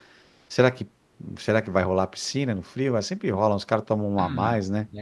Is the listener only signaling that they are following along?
No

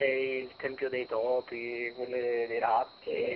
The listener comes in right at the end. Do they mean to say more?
No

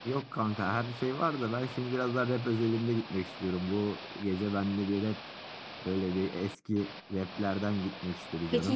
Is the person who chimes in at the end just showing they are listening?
No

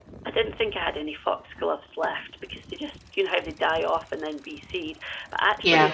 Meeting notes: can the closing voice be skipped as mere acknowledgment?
Yes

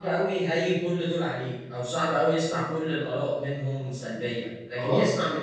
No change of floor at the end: Yes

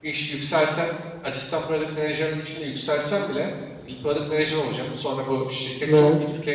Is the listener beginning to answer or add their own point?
No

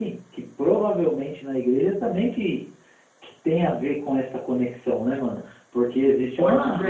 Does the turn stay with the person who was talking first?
Yes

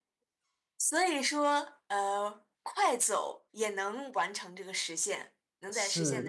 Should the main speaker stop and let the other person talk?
Yes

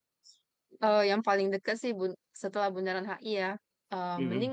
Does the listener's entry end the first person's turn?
No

